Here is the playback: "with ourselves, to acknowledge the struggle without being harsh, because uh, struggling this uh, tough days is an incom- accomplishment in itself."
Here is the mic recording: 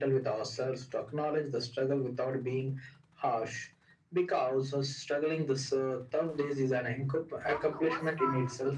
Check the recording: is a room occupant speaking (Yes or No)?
Yes